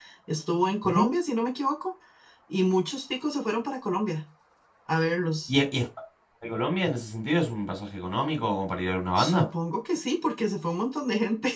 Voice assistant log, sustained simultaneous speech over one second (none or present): none